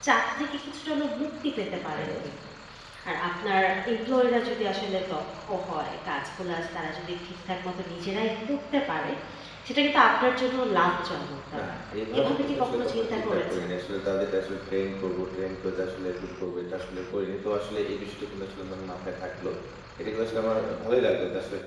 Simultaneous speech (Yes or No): Yes